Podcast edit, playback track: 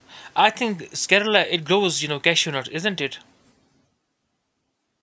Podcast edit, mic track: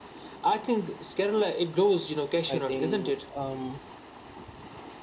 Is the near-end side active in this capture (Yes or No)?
Yes